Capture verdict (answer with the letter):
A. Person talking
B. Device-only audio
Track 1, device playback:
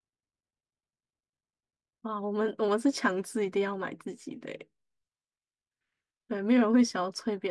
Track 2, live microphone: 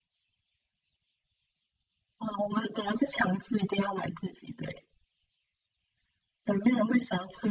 B